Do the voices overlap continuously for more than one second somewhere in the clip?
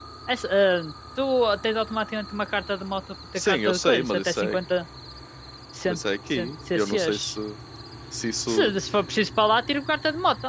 Yes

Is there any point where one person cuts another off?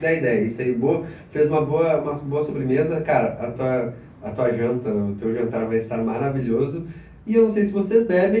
No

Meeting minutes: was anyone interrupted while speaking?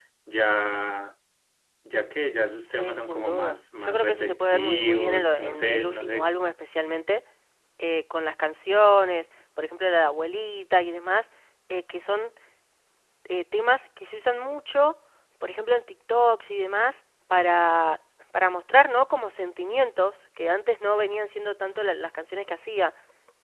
Yes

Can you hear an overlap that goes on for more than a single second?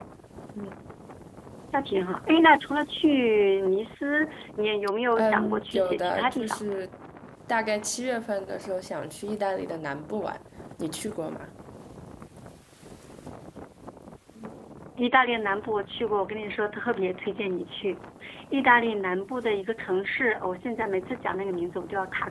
Yes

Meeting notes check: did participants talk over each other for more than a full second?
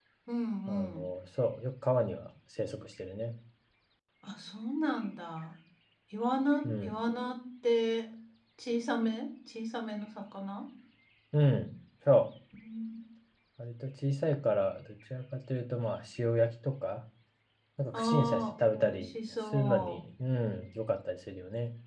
Yes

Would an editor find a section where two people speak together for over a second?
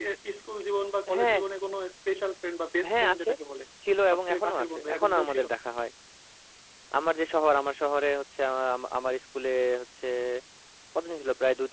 Yes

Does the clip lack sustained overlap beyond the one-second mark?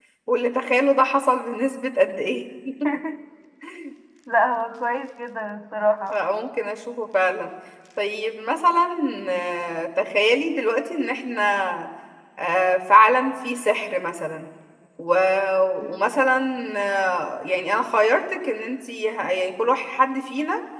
Yes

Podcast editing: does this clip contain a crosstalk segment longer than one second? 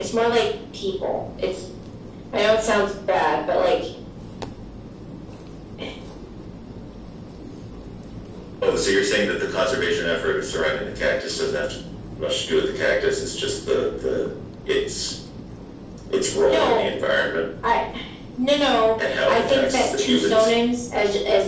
Yes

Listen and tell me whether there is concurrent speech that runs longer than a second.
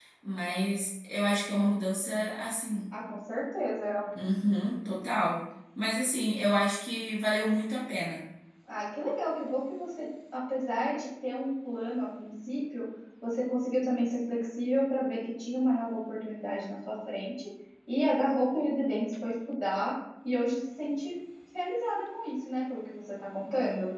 No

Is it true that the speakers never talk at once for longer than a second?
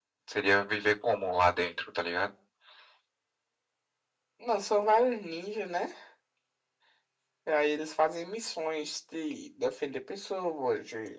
Yes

